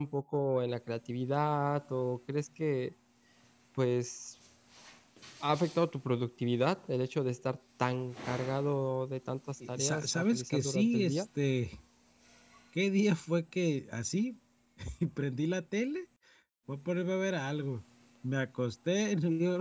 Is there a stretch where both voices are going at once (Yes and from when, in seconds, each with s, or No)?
Yes, from 9.6 s